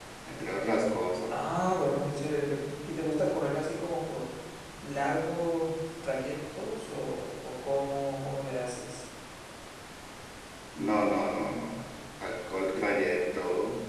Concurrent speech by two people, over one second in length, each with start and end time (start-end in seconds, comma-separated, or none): none